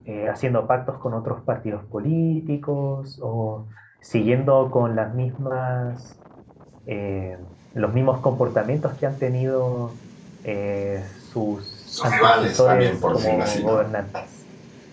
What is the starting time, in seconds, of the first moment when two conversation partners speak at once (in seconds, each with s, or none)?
11.9 s